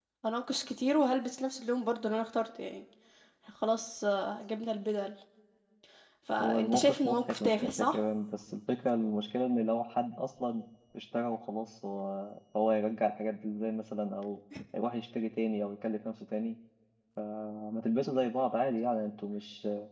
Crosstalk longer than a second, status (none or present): present